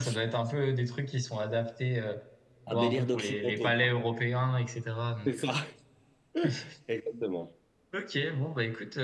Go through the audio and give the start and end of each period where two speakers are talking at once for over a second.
2.7-3.9

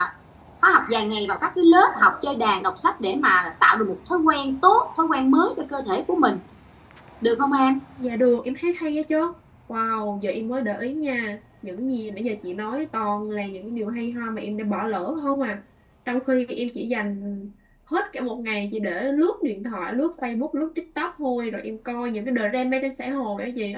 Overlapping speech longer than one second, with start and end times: none

